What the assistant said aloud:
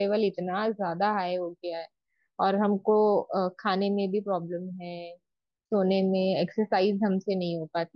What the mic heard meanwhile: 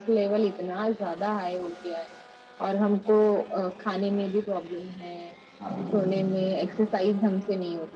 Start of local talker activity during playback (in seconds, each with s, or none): 5.6 s